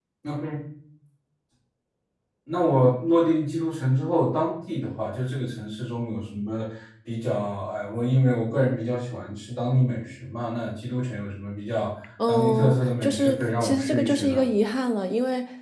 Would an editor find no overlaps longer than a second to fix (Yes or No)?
No